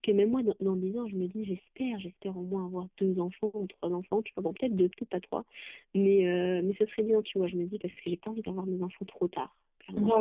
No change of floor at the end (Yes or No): No